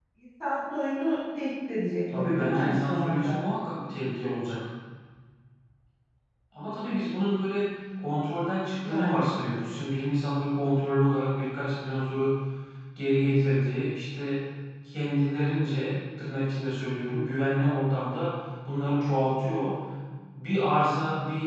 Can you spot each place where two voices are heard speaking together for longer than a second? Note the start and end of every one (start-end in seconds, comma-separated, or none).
2.1-3.4